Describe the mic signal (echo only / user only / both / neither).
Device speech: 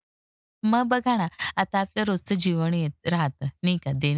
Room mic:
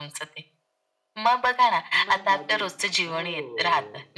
both